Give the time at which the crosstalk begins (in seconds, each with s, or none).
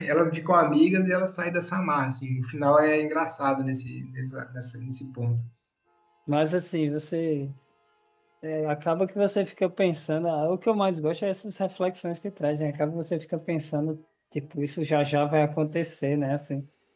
none